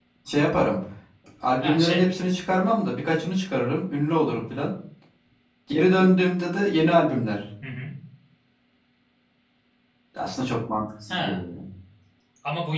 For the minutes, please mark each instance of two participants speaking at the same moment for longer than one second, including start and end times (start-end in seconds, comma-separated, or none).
none